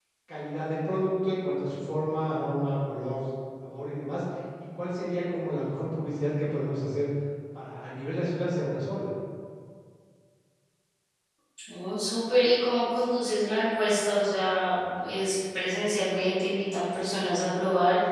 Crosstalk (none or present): none